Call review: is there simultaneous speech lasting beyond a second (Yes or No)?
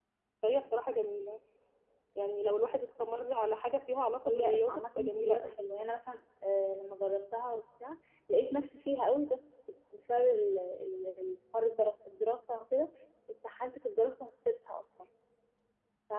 Yes